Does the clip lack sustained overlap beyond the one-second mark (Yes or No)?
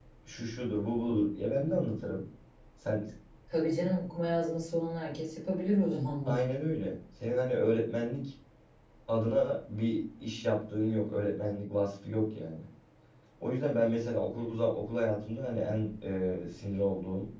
Yes